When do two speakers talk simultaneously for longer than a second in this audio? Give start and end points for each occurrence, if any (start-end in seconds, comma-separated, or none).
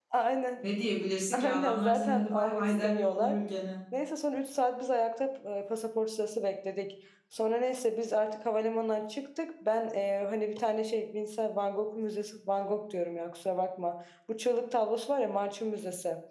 1.3-3.4